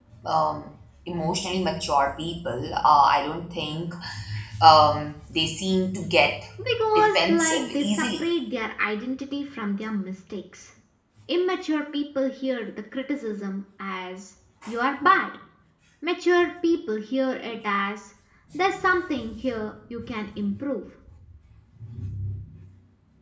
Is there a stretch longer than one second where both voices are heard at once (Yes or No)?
Yes